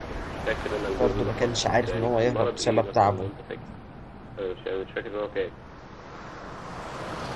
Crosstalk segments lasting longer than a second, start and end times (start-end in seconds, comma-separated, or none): 1.3-3.3